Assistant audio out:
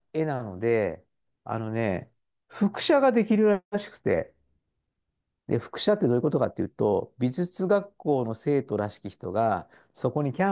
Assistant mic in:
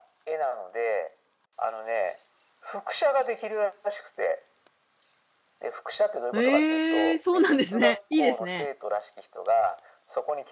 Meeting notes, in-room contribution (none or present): present